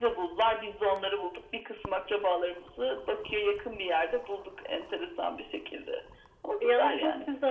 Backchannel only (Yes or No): No